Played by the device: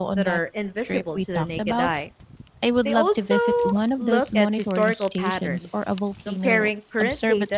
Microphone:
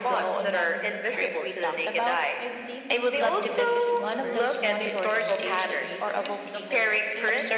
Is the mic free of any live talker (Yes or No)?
No